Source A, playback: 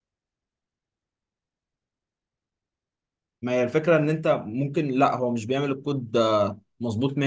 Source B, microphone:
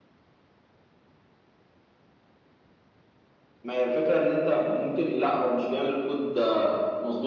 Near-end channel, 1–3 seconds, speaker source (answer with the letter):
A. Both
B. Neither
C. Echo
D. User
B